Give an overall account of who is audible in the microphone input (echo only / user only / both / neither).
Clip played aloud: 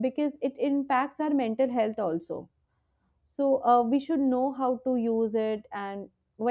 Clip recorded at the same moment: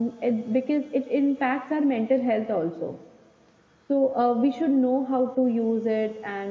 echo only